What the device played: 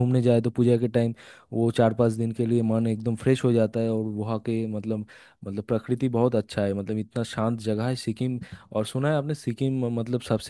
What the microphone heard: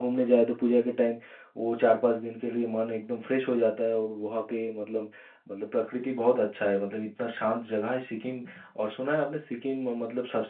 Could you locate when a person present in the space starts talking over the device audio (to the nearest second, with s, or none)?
none